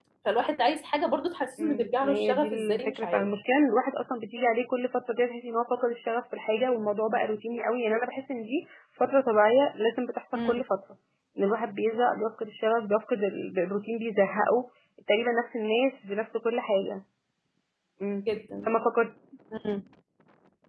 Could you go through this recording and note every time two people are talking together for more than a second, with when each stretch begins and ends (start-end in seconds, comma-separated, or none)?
1.6-3.3